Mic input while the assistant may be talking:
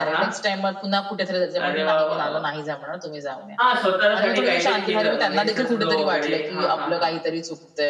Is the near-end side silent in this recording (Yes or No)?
No